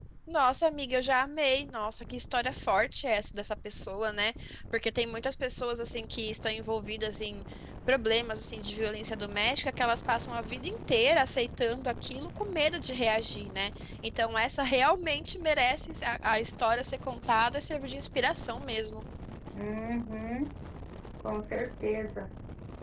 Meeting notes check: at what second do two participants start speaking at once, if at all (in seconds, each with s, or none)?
none